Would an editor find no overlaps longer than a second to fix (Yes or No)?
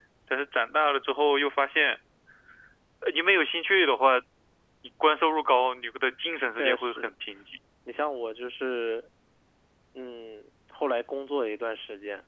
Yes